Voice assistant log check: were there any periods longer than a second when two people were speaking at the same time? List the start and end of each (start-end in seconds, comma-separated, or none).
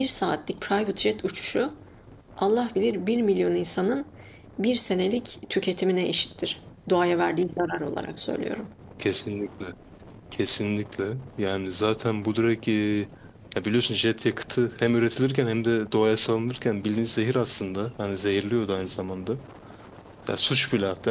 none